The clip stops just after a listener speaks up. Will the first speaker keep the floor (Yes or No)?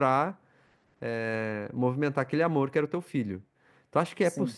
Yes